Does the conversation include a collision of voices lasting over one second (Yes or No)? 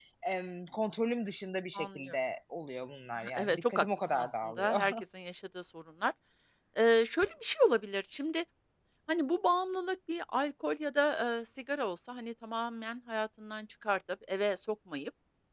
Yes